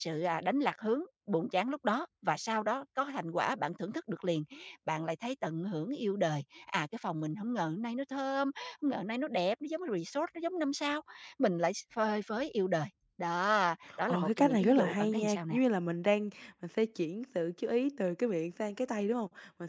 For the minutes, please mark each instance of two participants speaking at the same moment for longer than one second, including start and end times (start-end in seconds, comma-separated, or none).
14.1-15.5